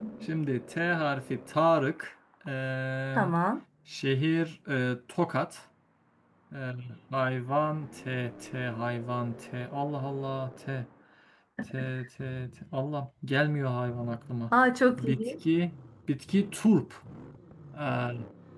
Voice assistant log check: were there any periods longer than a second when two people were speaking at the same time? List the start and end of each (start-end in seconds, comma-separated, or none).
none